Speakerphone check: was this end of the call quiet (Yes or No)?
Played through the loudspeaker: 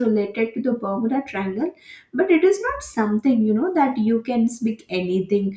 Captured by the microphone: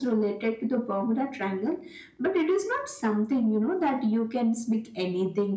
Yes